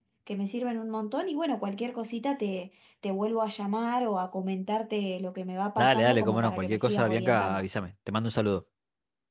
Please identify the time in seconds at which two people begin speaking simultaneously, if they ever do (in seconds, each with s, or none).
5.8 s